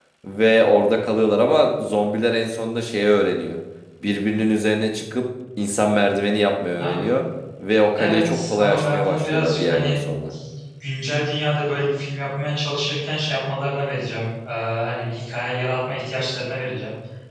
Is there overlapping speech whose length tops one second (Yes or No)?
Yes